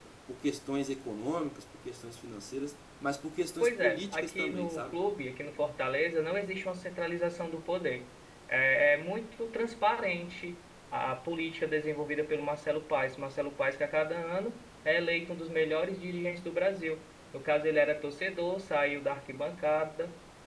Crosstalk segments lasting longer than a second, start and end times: 3.6-5.0

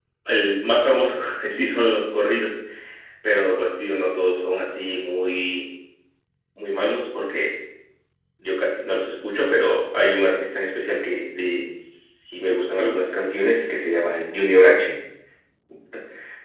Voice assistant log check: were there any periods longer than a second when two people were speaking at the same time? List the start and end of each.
none

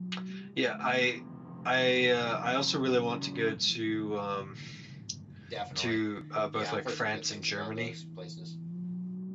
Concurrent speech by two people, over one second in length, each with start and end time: 6.5-7.9

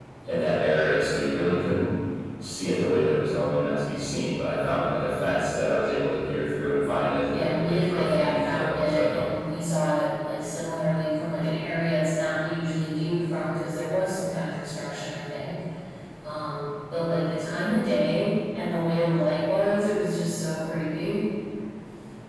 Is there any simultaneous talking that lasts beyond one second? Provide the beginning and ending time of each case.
7.2-9.2

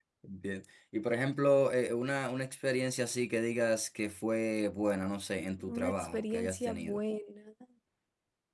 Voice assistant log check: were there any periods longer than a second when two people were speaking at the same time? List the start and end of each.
5.7-7.0

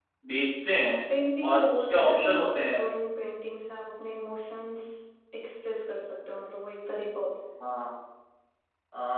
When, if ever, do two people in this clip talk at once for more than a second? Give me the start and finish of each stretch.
1.5-2.9

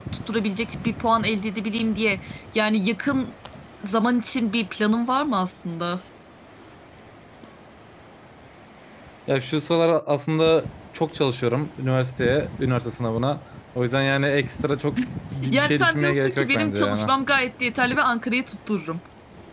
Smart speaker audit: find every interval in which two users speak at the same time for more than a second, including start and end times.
15.5-17.1

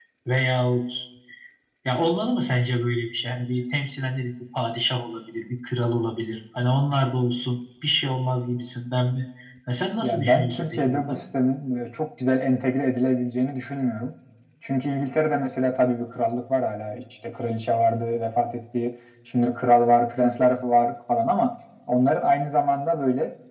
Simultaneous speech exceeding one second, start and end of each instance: 10.0-11.2

